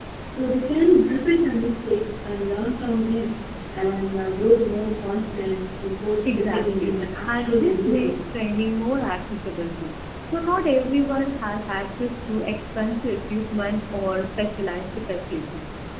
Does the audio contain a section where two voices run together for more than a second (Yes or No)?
Yes